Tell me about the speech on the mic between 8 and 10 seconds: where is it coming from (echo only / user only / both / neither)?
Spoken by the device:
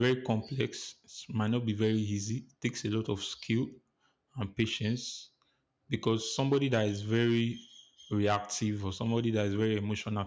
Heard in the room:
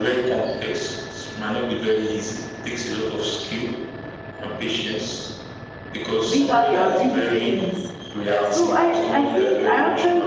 both